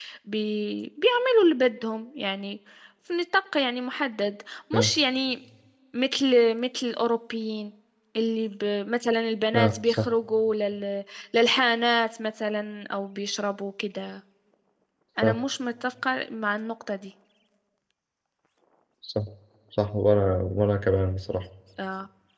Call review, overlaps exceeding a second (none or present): none